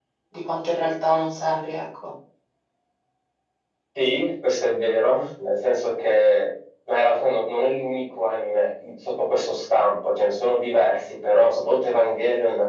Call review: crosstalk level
none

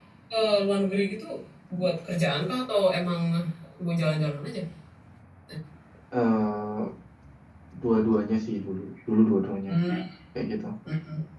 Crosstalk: none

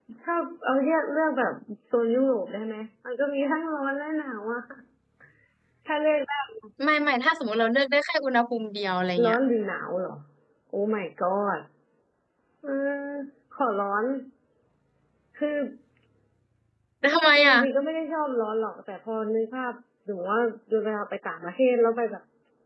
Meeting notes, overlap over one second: none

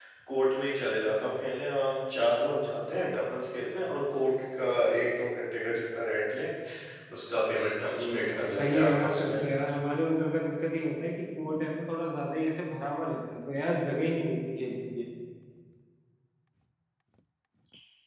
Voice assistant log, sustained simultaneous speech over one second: present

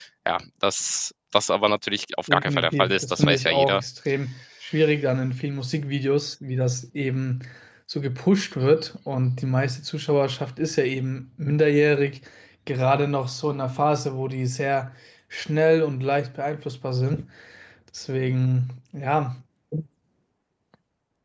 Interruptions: present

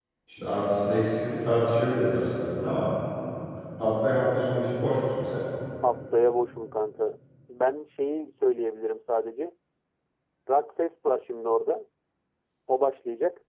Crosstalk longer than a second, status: none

